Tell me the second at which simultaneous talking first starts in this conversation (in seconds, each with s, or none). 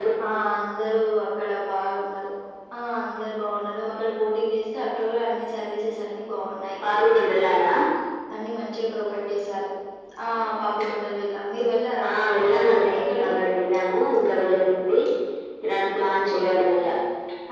12.0 s